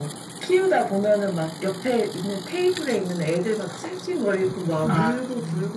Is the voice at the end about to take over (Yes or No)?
No